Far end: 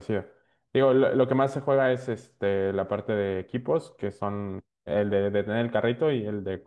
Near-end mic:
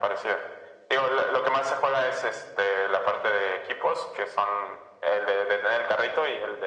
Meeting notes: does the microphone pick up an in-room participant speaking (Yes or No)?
No